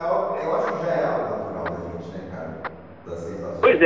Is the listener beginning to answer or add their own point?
Yes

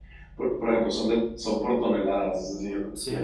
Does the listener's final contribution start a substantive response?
No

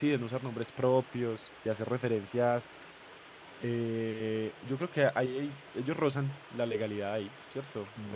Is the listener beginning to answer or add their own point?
Yes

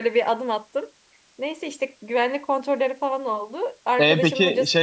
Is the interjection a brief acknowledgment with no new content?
No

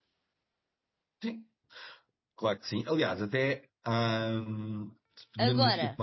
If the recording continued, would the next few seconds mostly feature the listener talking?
No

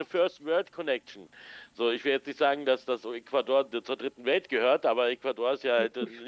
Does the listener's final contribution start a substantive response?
No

